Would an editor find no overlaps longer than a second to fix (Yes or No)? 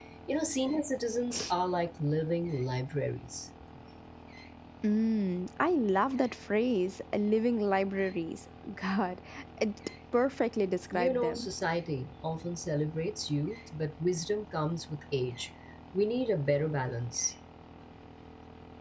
Yes